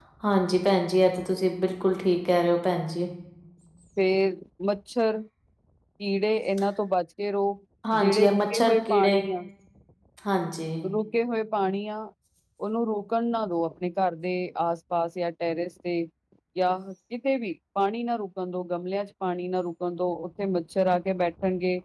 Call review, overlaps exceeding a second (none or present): present